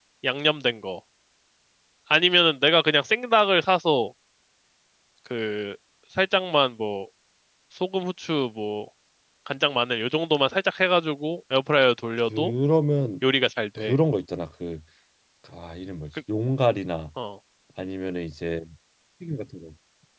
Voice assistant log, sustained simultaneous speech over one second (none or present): none